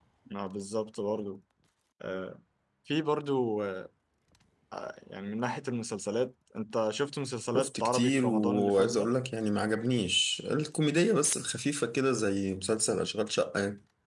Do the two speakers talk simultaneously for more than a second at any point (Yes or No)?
Yes